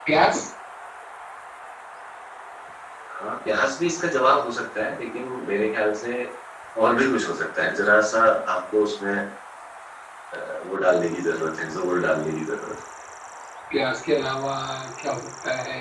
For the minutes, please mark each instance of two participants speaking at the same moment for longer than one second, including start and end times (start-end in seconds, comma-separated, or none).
none